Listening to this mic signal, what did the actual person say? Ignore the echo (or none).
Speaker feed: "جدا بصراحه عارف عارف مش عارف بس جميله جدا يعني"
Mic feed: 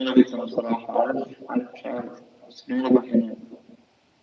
none